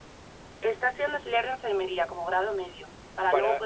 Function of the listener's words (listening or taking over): listening